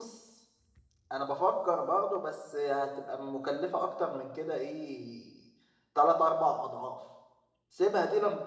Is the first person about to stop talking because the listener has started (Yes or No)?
No